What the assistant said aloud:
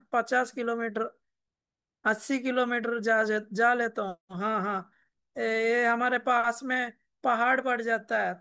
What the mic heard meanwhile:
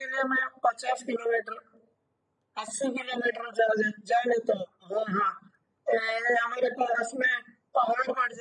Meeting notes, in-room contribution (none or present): none